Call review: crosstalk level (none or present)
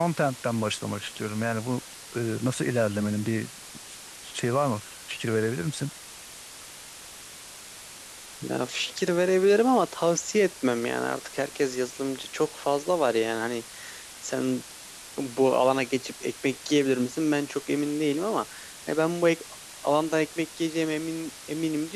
none